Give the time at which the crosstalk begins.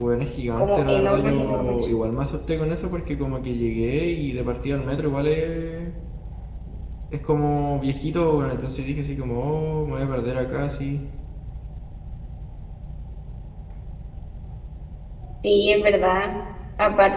0.6 s

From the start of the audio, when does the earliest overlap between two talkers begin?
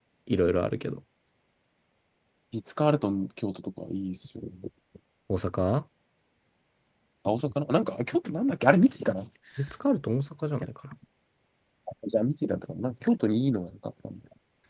none

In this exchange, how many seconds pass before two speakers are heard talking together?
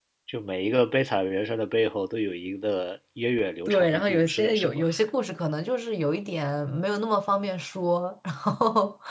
3.7 s

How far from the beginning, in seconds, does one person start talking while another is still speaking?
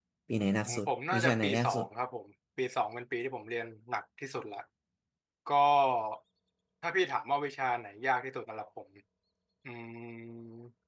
0.7 s

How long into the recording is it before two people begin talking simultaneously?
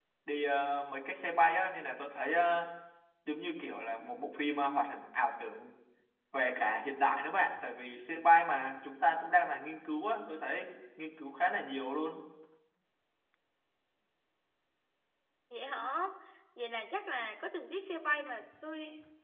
none

